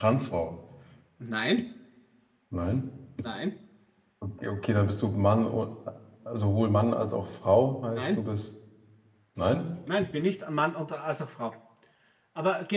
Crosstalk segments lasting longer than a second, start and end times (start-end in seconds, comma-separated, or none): none